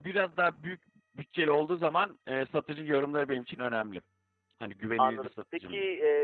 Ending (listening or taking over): taking over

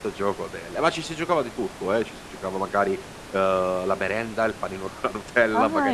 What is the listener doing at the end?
taking over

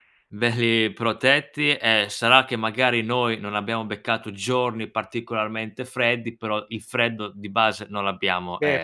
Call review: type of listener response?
taking over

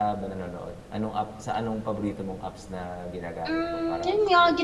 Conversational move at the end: taking over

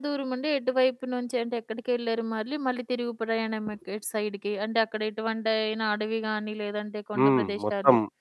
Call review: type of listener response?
taking over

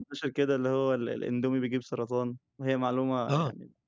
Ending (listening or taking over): taking over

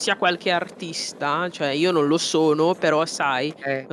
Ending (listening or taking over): listening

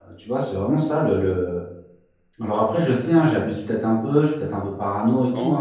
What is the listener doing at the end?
taking over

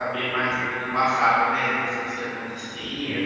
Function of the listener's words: listening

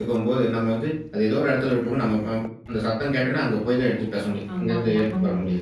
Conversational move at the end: listening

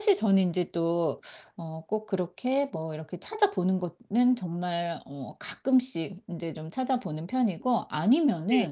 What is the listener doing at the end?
listening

